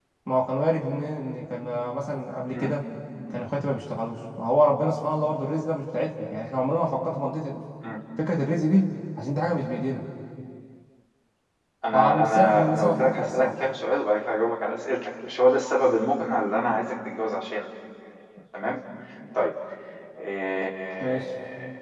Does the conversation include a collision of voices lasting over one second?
Yes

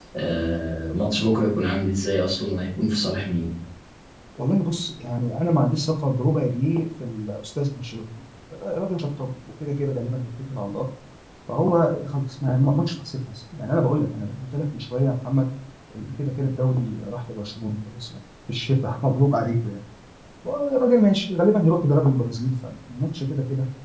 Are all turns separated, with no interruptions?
Yes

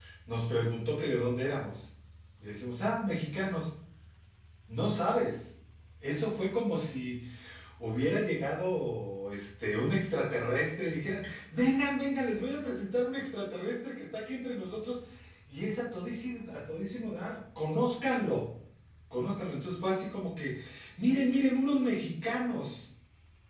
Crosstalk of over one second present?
No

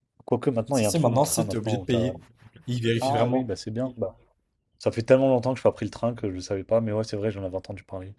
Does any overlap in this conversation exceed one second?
Yes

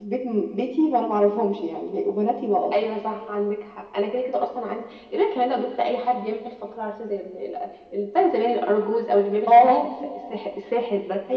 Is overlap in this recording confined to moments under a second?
Yes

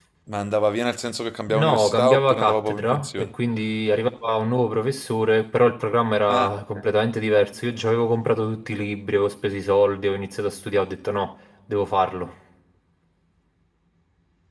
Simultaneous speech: Yes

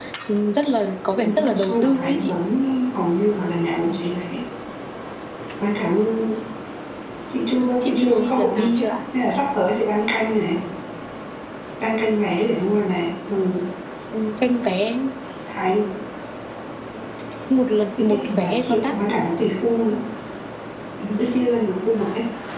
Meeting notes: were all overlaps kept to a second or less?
No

